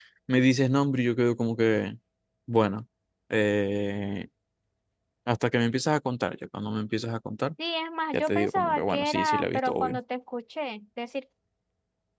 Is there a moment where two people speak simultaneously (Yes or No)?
Yes